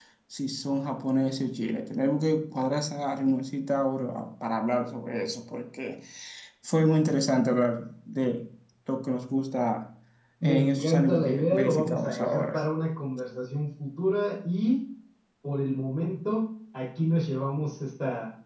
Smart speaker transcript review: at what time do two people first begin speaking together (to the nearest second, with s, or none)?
10 s